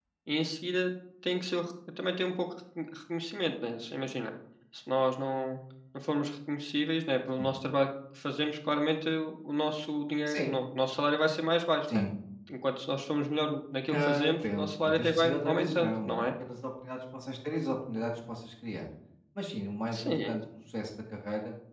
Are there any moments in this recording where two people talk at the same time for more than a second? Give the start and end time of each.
13.9-16.3

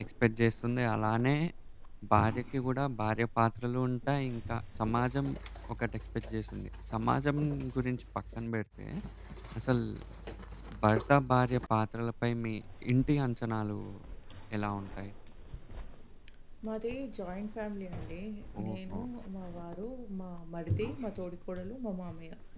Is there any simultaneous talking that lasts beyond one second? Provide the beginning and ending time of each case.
none

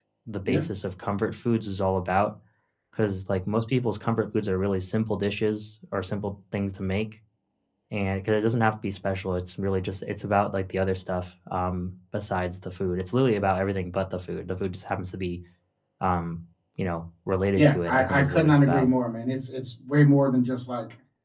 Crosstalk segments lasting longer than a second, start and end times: 17.6-18.9

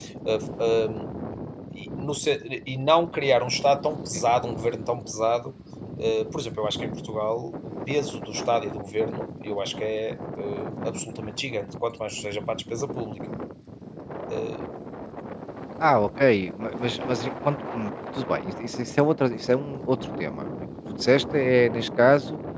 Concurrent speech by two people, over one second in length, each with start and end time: none

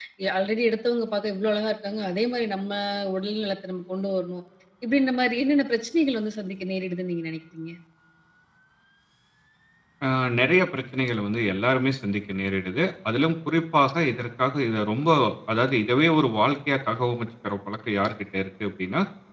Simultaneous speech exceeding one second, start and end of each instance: none

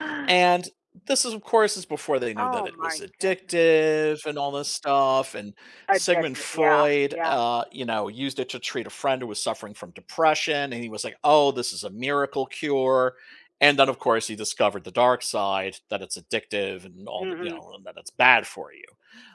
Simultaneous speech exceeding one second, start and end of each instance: 2.4-3.6, 5.9-7.4

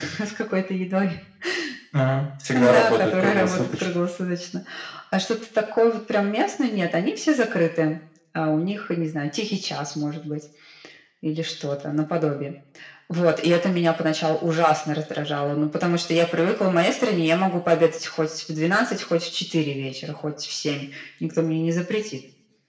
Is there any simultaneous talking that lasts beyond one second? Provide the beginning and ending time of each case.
2.5-3.9

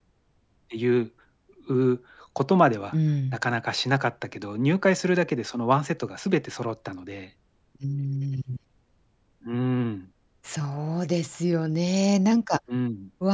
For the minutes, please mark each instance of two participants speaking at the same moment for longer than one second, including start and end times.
none

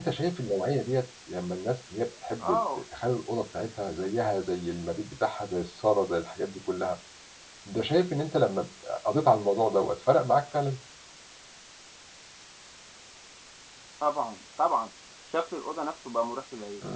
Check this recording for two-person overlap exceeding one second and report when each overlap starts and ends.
none

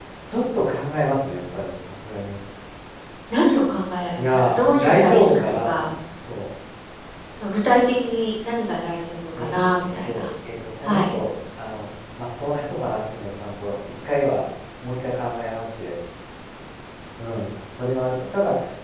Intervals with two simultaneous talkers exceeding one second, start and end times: 4.2-5.7

